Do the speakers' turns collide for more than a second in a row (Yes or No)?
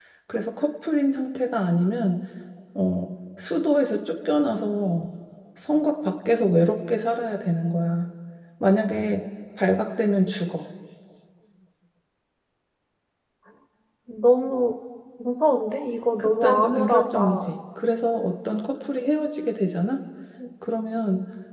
Yes